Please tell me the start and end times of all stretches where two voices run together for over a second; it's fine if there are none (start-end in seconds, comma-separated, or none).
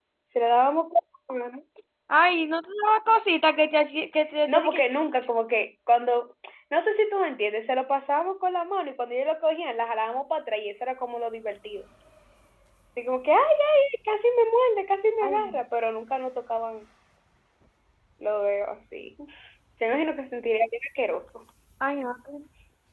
none